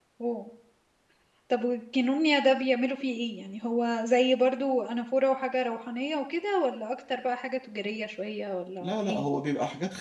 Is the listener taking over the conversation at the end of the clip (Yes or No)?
Yes